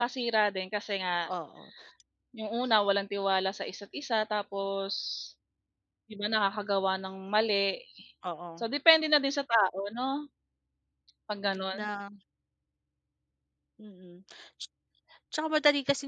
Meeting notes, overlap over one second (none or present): none